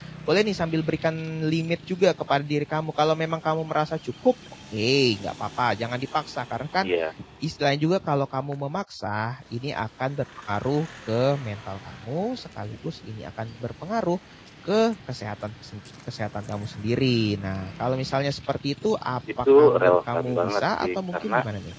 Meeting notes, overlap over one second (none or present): present